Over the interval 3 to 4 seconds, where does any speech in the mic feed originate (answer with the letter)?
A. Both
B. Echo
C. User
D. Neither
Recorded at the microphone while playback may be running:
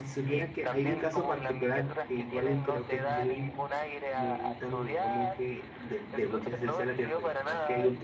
A